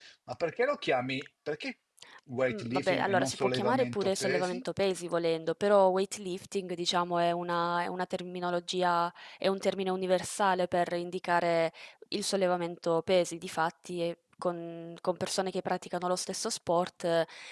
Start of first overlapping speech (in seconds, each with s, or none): 2.5 s